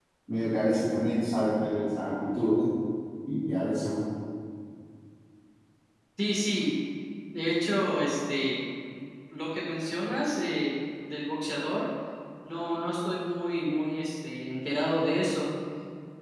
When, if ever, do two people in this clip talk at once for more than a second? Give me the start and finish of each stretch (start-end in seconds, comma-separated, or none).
none